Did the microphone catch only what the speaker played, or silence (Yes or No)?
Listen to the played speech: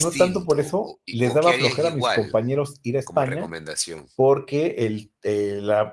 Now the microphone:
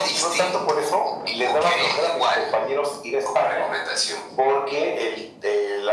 Yes